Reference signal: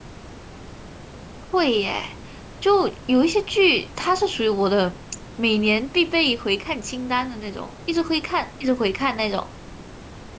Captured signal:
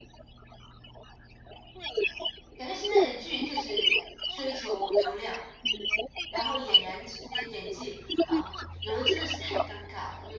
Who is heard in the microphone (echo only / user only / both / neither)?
both